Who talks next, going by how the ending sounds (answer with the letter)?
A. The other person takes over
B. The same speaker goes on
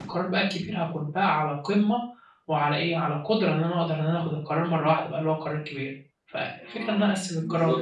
A